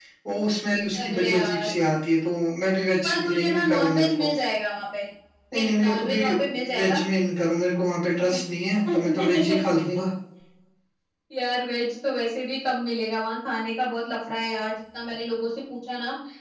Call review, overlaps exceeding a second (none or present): present